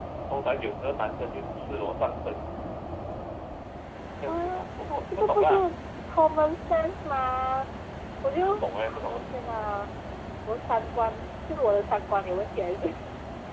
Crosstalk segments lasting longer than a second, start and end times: 4.3-5.5

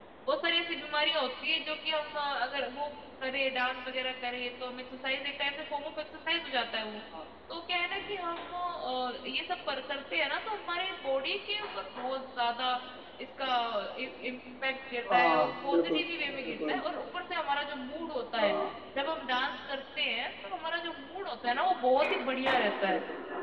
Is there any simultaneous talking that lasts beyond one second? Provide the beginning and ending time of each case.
15.1-16.8

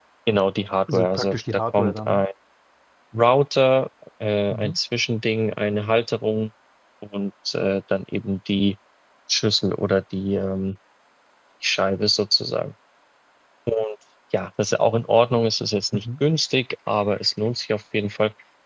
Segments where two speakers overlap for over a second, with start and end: 0.9-2.2

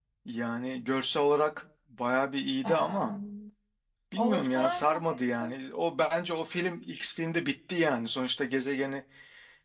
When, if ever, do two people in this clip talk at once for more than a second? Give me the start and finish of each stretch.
4.3-5.5

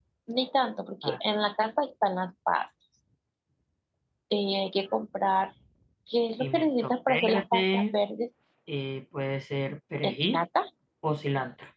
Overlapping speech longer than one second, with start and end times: 6.4-8.0

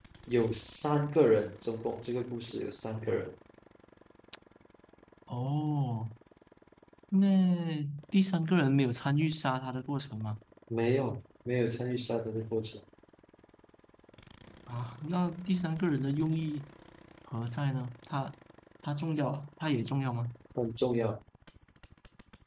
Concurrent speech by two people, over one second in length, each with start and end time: none

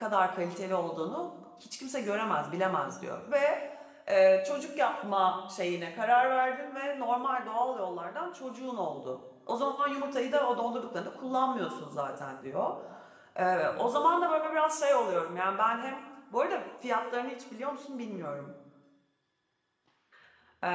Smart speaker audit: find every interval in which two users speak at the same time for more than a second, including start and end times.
none

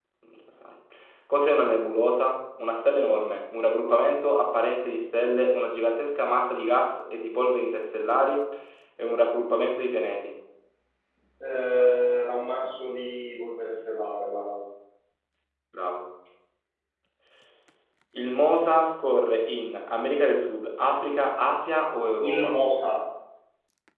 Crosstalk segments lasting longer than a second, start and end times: none

